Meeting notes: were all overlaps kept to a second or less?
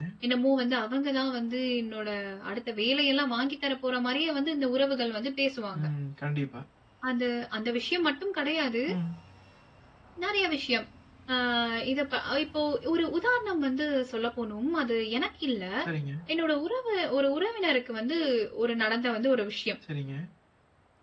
Yes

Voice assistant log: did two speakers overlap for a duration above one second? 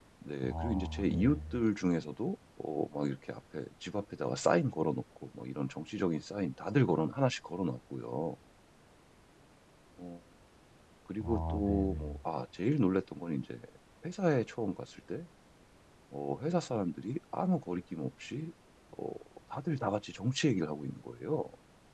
Yes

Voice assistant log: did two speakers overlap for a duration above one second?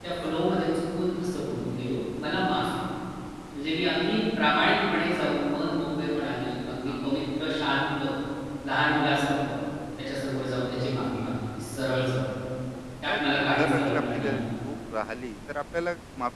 Yes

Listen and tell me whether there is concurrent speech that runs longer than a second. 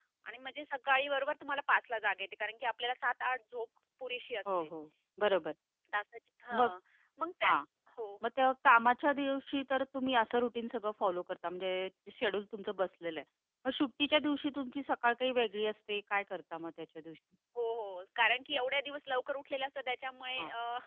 No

